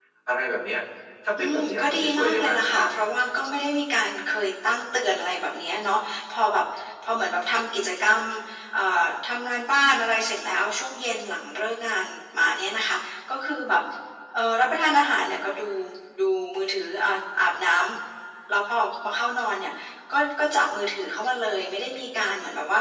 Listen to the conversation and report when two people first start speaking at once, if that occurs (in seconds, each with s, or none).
1.4 s